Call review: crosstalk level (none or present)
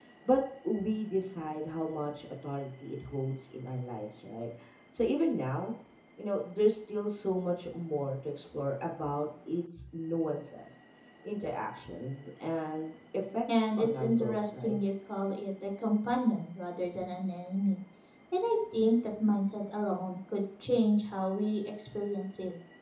present